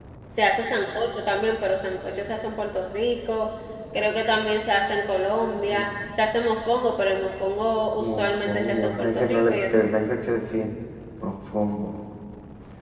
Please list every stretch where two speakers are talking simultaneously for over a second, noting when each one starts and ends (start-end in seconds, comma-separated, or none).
8.0-9.9